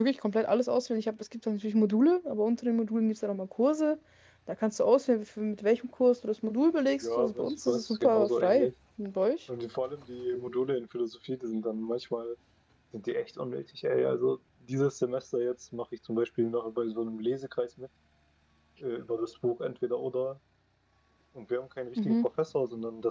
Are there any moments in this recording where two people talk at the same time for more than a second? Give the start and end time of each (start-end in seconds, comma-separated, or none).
7.0-8.7